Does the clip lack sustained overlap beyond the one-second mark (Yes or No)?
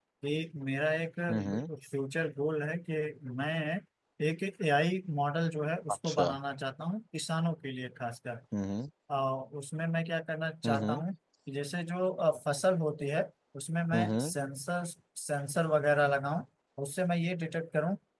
Yes